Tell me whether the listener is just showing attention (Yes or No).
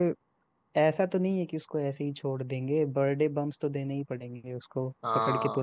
No